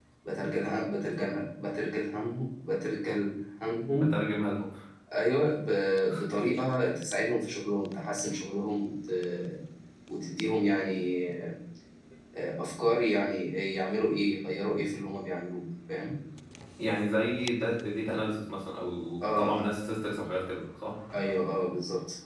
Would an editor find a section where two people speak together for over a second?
No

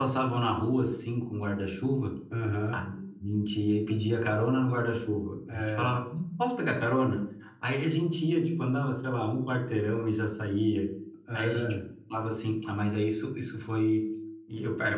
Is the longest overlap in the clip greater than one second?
No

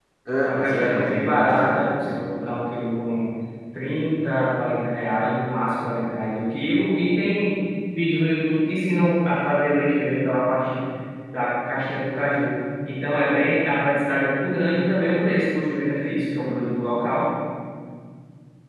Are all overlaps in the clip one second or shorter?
No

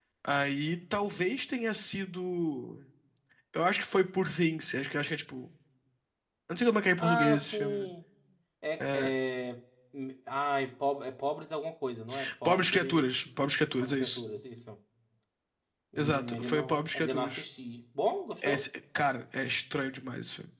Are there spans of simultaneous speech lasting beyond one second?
Yes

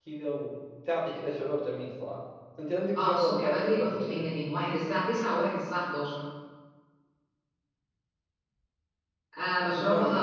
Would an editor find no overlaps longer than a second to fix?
No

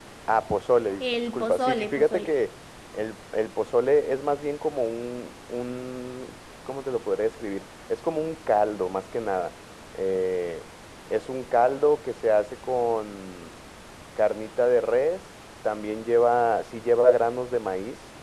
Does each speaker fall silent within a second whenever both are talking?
No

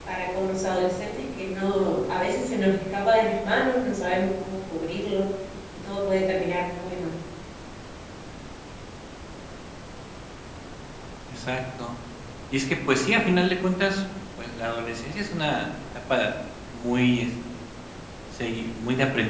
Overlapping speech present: No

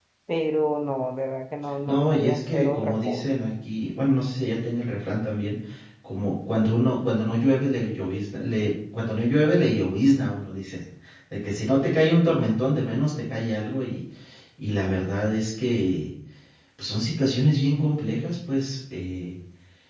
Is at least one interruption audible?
Yes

